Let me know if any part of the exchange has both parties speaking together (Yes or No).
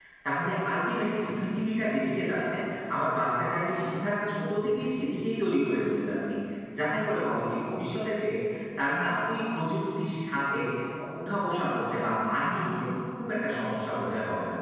No